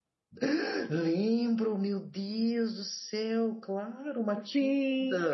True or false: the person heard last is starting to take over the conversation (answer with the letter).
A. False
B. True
B